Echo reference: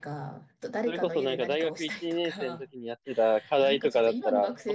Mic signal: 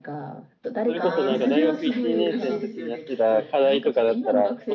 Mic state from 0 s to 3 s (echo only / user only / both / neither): both